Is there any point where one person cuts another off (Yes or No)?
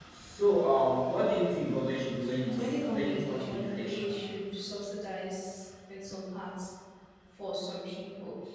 Yes